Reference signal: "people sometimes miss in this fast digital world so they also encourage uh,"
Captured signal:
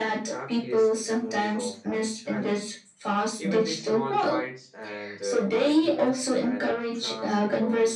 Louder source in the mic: echo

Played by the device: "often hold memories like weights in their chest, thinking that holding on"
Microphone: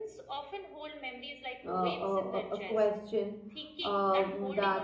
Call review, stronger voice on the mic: user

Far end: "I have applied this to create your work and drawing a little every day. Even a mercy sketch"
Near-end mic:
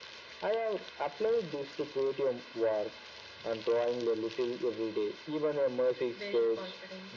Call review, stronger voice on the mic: echo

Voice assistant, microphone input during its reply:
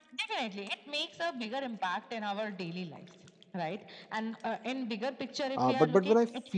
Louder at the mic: user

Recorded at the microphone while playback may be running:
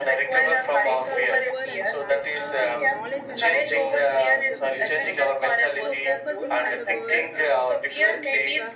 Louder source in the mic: echo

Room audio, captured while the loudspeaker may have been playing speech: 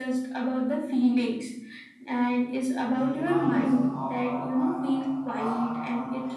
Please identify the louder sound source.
echo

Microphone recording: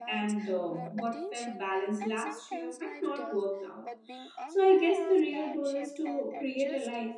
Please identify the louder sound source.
user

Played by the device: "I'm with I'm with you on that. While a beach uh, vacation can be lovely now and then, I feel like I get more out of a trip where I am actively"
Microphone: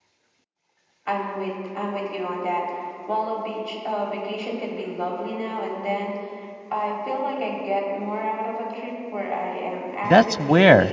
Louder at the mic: user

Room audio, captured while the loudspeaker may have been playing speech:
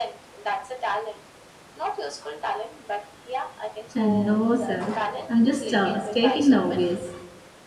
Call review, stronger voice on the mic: user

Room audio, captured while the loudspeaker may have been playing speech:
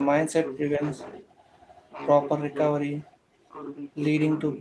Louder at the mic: user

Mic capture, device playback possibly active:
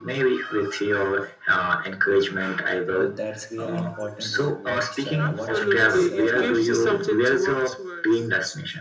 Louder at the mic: echo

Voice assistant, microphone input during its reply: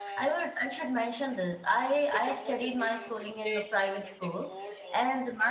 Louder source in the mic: user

